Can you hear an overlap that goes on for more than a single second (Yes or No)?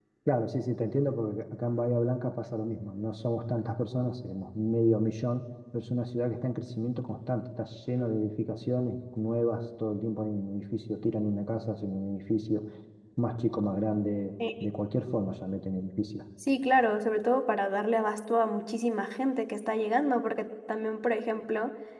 No